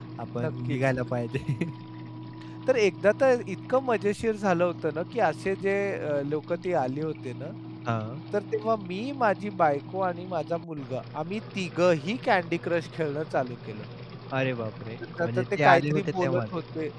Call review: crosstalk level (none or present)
present